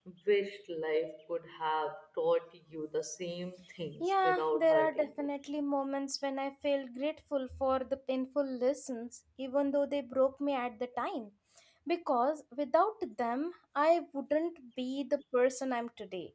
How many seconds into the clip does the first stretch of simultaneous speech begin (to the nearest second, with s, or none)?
4 s